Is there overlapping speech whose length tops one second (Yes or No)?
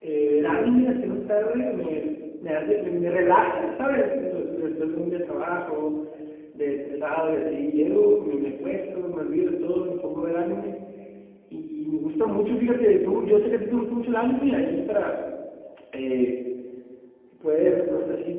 No